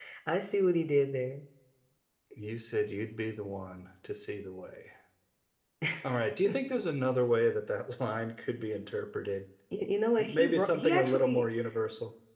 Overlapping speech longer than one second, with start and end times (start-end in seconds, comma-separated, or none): 10.2-11.4